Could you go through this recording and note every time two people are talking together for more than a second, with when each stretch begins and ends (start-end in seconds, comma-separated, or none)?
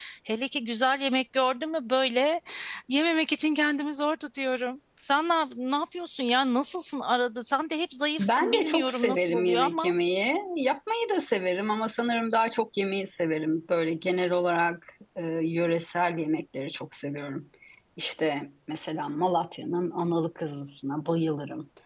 8.2-9.9